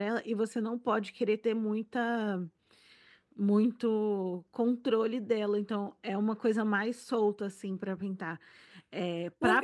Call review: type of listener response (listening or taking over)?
taking over